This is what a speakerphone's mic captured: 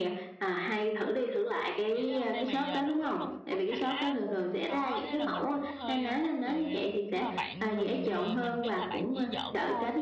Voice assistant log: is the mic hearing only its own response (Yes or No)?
No